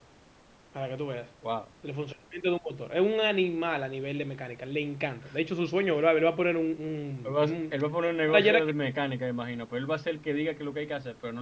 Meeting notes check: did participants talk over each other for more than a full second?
No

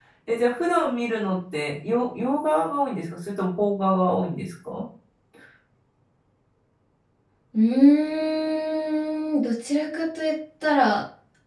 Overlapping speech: No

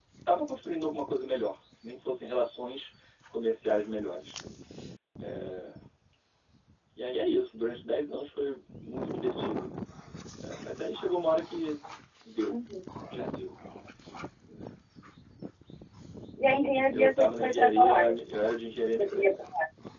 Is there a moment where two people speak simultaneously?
Yes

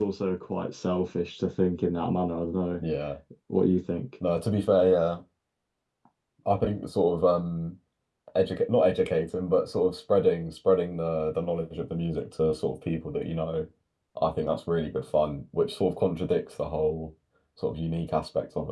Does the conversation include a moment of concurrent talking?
No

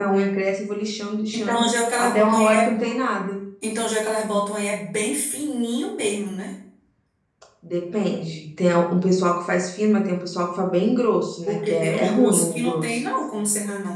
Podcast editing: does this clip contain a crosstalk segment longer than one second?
Yes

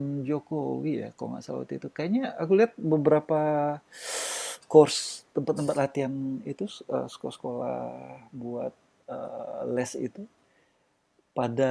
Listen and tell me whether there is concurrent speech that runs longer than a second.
No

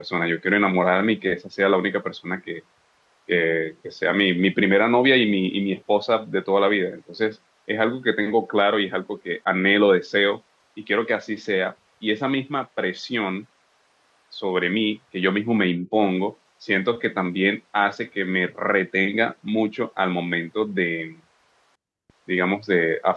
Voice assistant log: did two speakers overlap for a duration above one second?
No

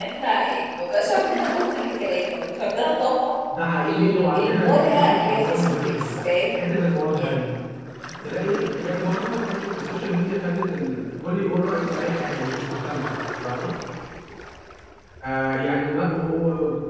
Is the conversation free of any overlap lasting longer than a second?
No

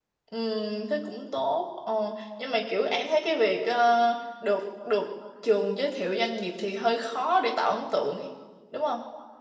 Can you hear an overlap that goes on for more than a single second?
No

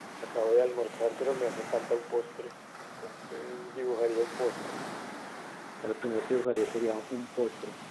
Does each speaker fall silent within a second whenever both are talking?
Yes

